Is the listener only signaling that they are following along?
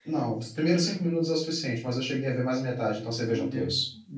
No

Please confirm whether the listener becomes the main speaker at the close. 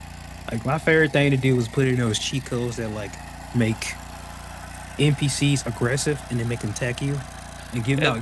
No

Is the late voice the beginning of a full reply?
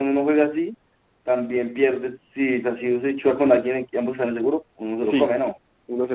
Yes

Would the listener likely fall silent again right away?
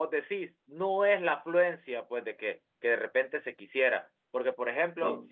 Yes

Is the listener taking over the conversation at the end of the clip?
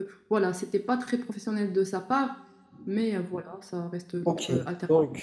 Yes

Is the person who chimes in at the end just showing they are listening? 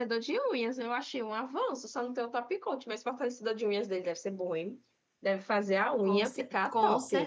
No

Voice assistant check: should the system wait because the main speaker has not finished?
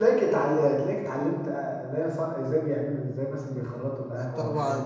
No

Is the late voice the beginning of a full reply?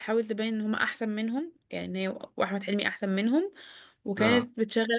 No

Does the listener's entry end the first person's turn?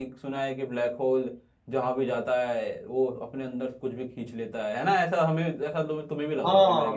Yes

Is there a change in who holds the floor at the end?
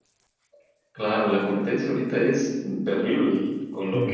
No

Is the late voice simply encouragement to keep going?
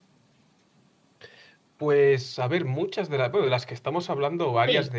Yes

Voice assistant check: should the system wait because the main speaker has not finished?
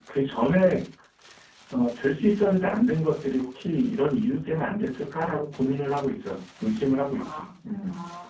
No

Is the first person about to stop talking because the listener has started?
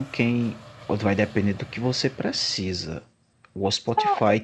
No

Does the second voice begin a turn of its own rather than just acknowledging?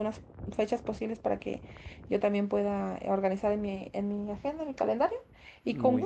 No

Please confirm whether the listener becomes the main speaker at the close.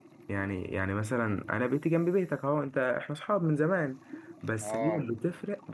No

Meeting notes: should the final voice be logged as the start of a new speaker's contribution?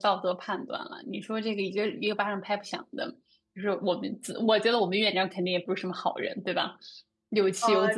Yes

